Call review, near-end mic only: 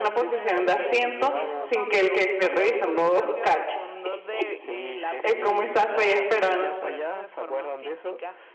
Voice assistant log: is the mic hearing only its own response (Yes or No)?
No